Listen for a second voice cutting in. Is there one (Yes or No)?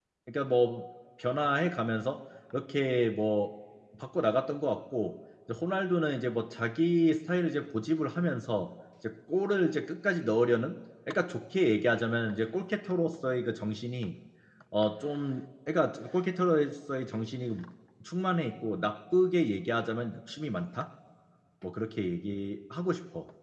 No